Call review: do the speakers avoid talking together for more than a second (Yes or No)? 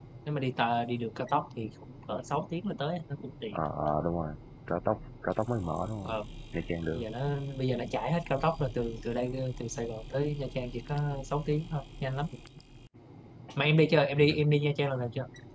Yes